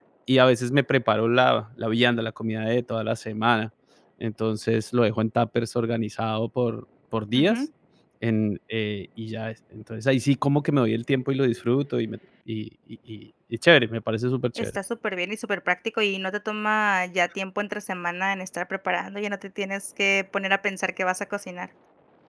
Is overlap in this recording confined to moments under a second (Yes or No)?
Yes